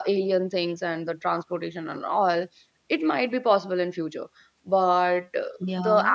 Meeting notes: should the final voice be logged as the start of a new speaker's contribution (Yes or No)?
No